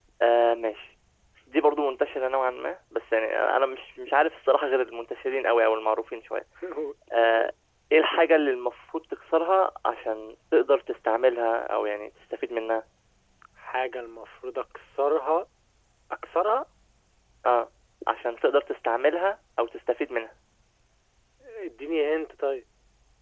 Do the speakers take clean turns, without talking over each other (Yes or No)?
Yes